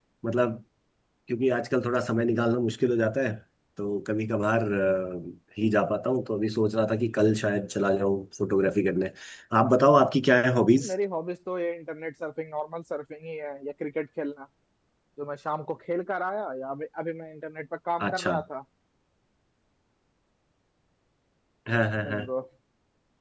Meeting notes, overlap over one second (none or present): none